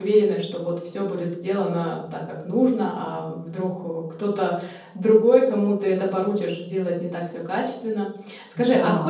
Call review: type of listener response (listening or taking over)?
listening